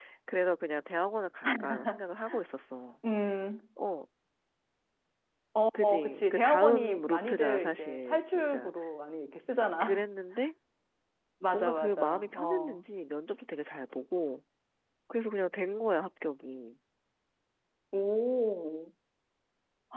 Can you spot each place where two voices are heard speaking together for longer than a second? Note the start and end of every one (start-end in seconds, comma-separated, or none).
5.7-8.7, 11.5-12.8